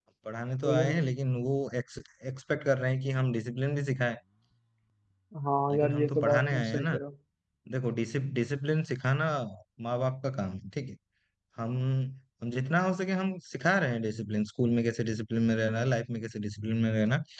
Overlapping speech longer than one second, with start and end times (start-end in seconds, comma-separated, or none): 5.7-7.0